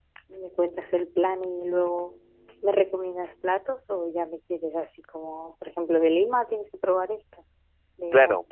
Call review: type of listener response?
taking over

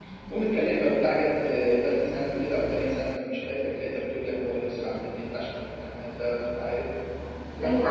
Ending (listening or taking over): taking over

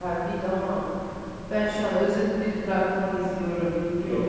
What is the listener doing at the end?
taking over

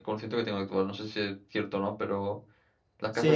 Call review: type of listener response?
taking over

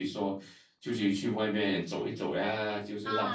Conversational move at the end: taking over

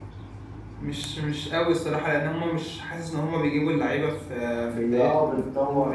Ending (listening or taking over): taking over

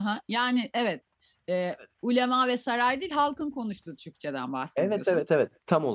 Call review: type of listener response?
taking over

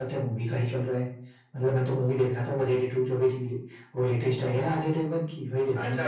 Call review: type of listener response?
taking over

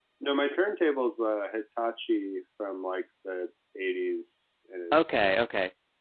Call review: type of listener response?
taking over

